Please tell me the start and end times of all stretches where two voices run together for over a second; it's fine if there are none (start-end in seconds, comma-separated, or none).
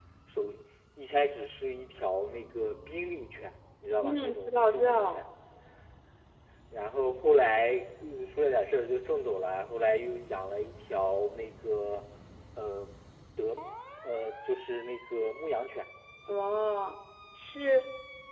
4.0-5.2